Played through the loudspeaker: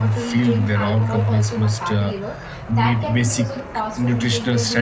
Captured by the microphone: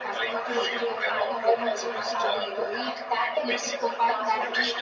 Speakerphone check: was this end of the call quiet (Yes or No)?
No